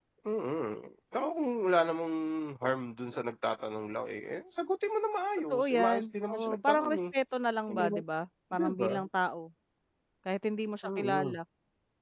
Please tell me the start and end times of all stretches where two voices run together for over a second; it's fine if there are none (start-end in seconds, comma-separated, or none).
5.5-7.0